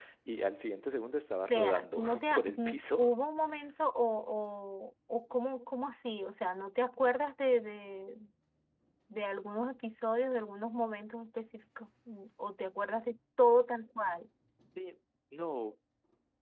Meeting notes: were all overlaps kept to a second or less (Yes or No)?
No